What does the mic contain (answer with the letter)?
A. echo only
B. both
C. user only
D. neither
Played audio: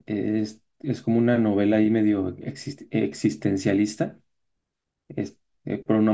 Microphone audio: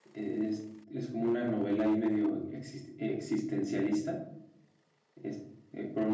A